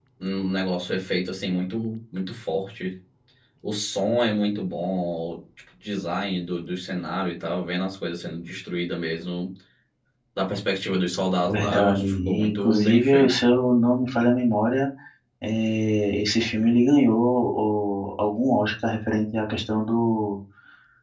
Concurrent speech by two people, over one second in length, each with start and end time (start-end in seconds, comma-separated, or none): 11.4-13.4